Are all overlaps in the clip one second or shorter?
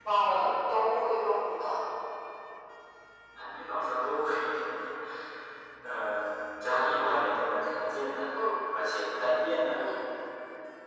Yes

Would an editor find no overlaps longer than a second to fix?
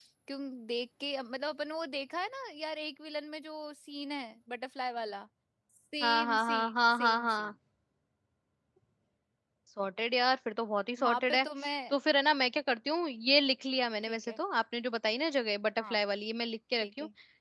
No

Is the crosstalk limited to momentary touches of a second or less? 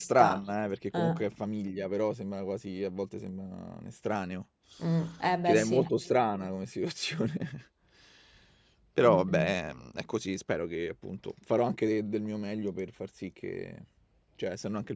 Yes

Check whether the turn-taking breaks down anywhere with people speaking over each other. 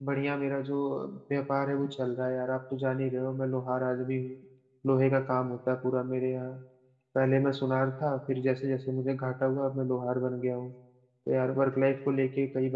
No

